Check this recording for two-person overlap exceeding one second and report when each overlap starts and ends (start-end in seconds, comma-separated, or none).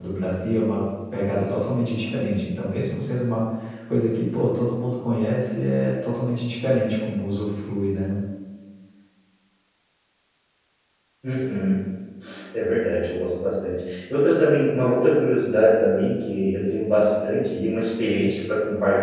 none